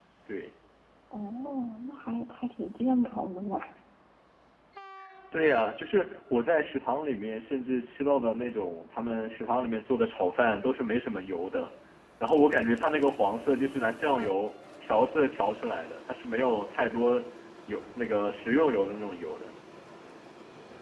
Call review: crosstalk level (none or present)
none